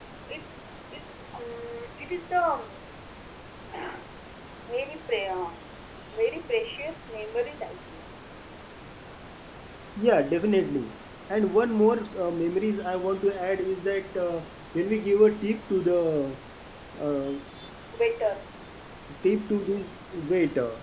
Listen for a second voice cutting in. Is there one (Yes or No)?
No